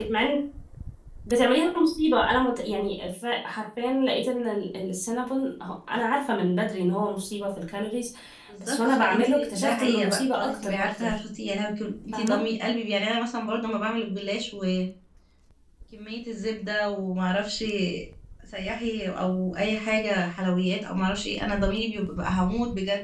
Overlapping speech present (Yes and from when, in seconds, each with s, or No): Yes, from 8.6 s